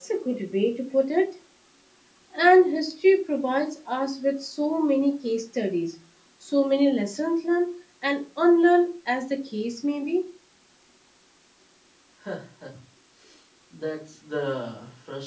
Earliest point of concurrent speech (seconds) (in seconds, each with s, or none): none